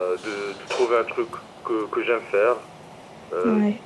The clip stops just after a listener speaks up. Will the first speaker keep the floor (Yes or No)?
Yes